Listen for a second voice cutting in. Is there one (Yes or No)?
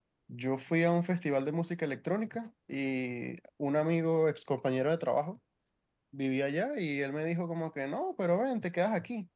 No